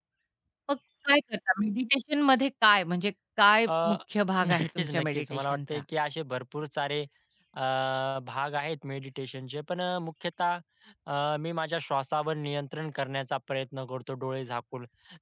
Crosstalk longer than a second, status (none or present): present